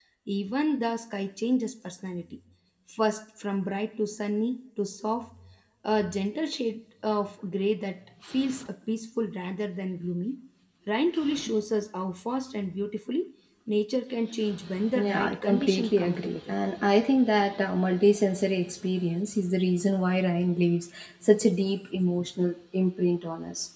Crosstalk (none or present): present